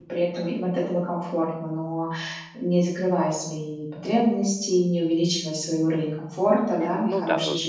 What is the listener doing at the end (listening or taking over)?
taking over